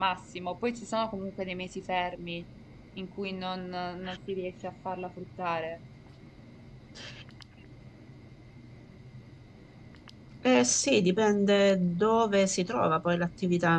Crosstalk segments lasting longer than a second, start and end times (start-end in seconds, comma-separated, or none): none